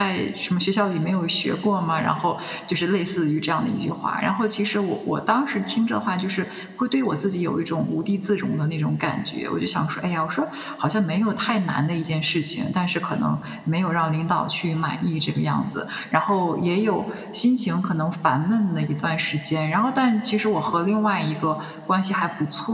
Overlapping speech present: No

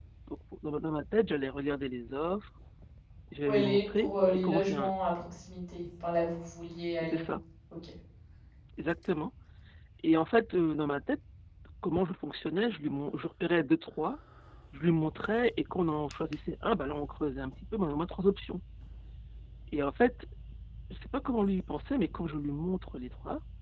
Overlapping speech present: Yes, from 3.4 s

